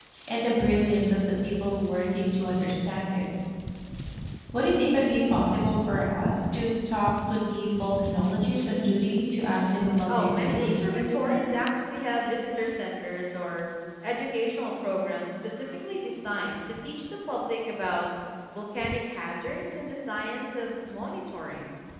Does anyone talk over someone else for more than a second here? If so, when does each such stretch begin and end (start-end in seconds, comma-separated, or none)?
10.2-11.5